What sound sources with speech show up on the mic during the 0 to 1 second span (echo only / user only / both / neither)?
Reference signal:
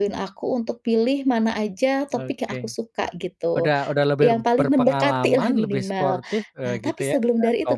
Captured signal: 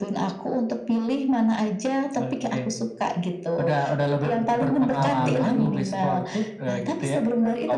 echo only